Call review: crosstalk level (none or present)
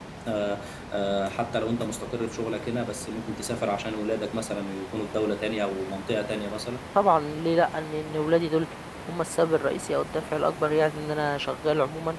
none